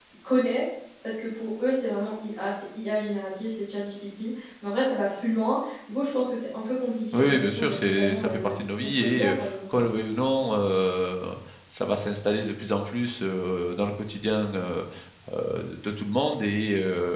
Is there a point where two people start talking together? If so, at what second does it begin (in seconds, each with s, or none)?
7.1 s